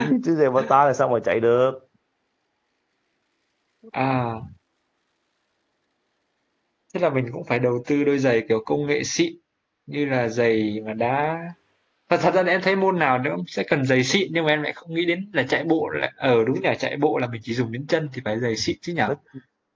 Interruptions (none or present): none